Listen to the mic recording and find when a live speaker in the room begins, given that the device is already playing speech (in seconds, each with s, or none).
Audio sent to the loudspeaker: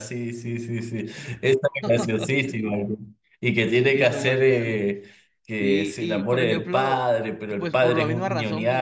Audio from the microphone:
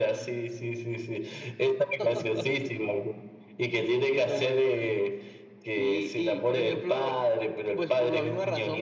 none